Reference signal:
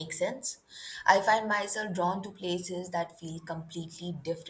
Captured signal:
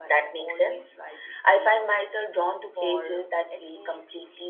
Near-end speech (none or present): present